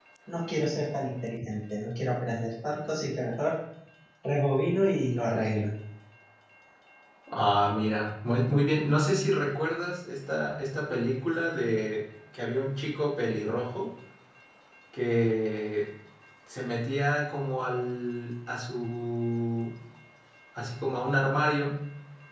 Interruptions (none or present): none